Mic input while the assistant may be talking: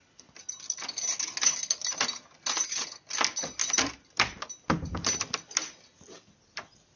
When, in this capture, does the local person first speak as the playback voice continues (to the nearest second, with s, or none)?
none